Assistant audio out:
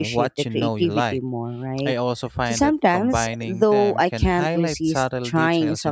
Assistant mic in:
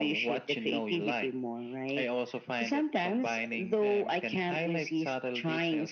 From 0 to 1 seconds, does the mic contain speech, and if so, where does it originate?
echo only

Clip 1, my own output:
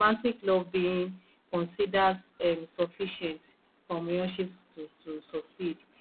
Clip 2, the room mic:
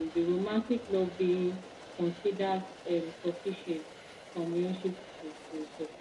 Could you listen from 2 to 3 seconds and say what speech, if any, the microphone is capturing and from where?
echo only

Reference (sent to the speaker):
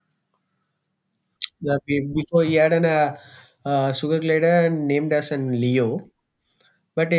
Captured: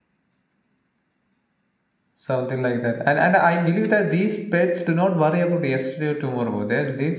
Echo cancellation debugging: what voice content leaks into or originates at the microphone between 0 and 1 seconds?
neither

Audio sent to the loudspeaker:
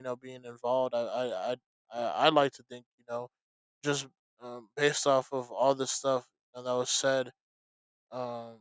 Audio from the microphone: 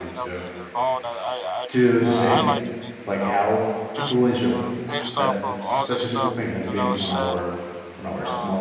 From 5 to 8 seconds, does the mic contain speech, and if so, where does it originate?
both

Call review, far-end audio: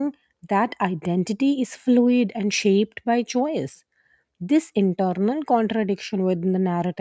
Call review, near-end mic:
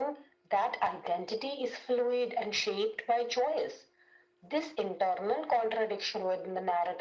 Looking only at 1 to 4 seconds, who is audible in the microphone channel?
echo only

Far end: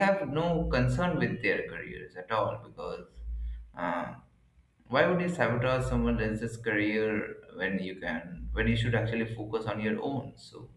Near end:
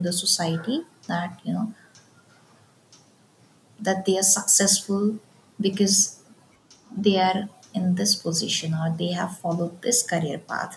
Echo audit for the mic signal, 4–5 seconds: user only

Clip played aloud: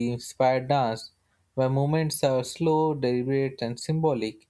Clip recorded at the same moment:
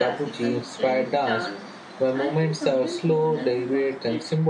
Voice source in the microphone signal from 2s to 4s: both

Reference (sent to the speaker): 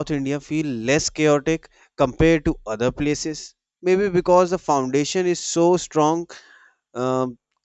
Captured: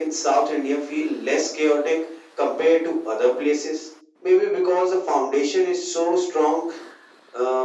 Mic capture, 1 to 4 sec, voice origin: echo only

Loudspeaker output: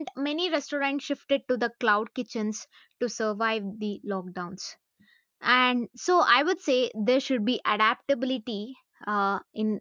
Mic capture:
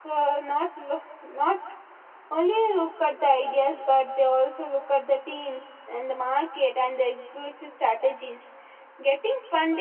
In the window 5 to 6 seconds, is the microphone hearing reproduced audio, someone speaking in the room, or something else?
user only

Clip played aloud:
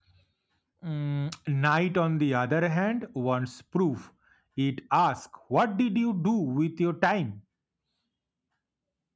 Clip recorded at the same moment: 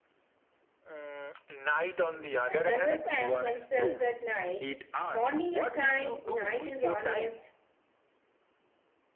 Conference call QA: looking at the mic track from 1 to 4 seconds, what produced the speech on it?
both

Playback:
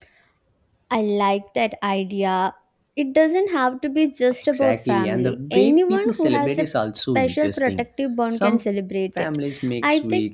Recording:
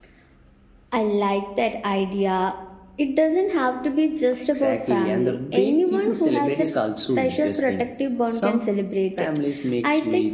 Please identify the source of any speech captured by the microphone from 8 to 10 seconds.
echo only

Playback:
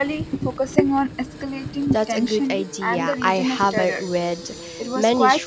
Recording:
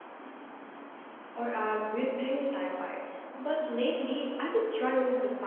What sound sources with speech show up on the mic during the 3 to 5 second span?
user only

